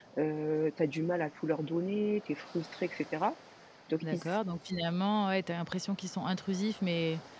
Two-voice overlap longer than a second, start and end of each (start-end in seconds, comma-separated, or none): none